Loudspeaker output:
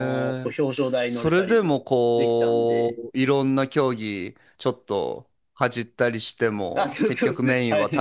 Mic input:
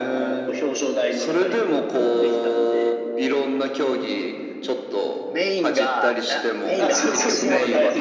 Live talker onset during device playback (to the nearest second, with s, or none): 5 s